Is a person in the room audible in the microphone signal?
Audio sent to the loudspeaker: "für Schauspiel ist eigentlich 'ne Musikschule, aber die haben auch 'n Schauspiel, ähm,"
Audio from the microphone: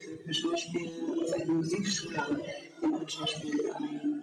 No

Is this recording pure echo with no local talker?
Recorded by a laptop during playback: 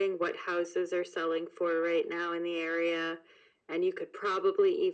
Yes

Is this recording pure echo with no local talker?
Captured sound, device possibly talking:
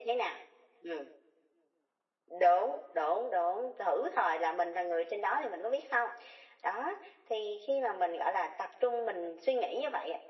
Yes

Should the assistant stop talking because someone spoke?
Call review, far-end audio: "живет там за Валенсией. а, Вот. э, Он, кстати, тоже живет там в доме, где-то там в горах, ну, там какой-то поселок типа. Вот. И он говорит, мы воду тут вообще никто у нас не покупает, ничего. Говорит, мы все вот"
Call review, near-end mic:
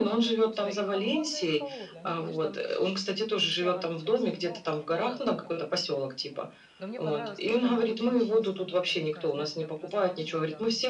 Yes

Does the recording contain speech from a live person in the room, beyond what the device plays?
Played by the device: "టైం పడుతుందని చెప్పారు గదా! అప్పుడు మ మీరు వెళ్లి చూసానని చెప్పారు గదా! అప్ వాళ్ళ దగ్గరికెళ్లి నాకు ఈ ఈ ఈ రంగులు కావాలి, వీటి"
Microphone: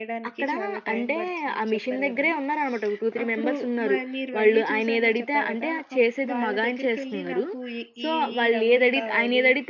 Yes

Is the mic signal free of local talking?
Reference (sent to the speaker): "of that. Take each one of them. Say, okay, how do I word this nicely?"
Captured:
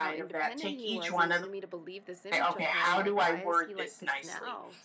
No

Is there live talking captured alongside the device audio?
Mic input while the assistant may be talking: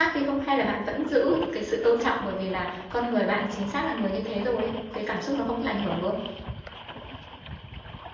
Yes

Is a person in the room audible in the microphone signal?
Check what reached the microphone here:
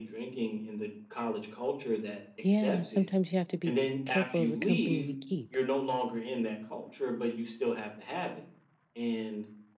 Yes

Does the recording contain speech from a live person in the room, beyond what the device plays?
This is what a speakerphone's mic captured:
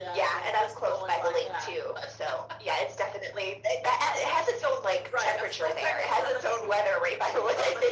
No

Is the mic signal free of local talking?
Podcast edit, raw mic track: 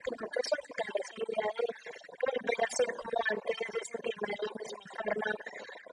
Yes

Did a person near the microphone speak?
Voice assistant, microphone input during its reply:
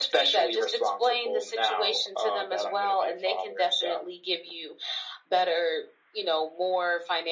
No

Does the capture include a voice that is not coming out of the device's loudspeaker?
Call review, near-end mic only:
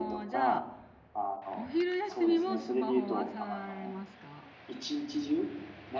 Yes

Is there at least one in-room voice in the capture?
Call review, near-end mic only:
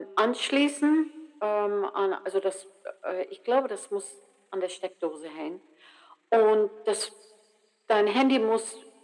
No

